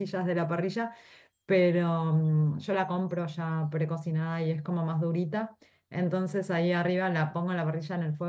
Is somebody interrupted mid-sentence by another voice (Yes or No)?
No